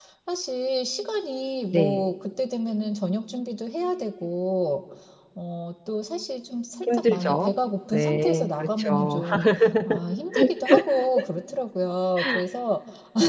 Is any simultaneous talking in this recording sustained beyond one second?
Yes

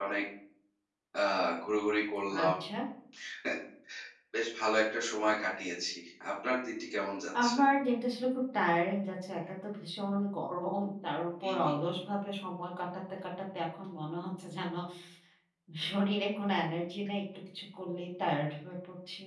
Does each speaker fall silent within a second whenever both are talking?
Yes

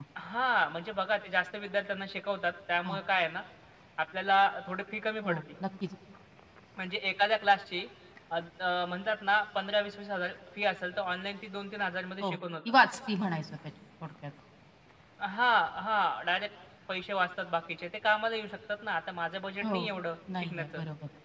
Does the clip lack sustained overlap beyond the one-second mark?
Yes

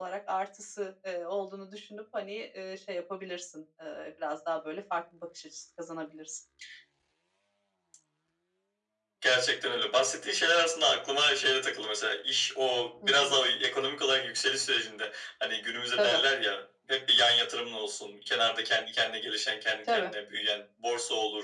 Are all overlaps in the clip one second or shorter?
Yes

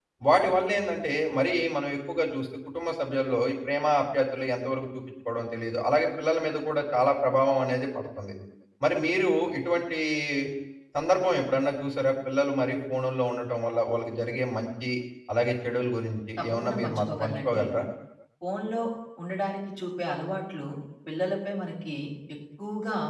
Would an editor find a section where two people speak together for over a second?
Yes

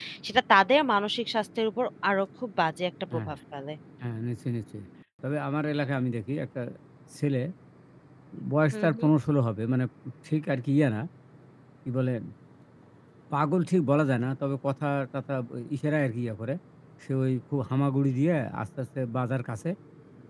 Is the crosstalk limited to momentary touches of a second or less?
Yes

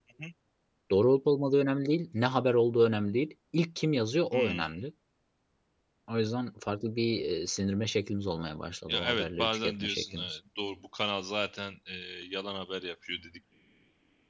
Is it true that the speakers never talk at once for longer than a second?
No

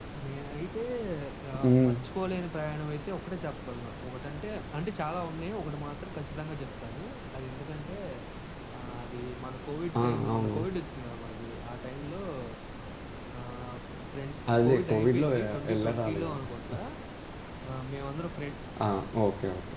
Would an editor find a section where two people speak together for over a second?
Yes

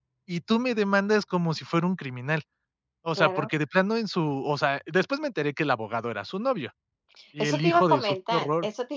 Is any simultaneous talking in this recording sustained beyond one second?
Yes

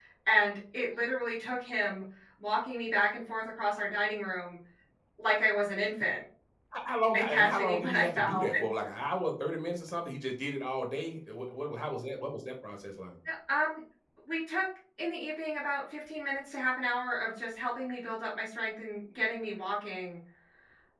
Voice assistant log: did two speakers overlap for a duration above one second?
Yes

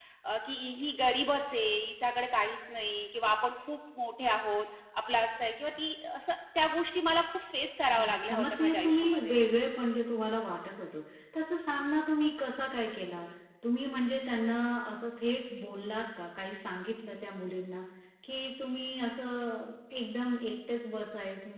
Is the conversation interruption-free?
No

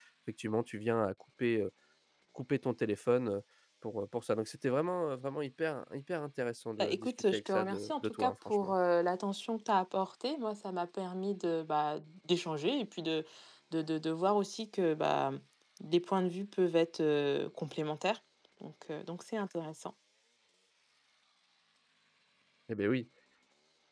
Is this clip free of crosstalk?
No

